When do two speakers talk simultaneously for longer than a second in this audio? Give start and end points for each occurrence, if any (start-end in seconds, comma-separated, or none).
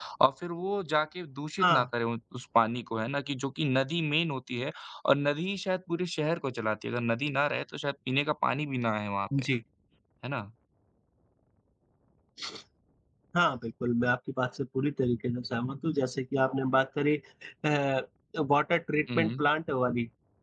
none